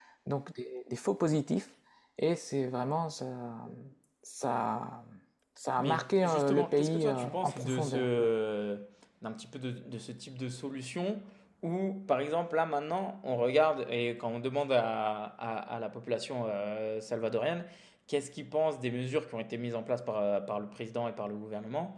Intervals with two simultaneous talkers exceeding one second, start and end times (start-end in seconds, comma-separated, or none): 5.8-8.3